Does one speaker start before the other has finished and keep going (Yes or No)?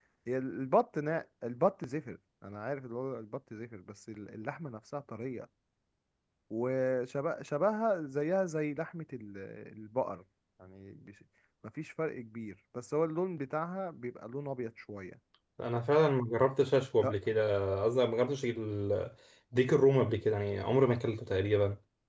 No